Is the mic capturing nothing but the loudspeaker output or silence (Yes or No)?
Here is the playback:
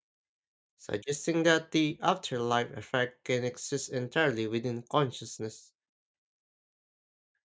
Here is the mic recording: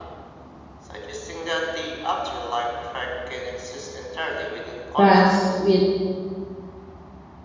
No